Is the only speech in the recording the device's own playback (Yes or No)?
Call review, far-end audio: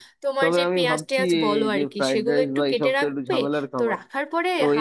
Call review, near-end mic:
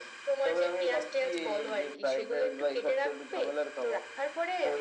Yes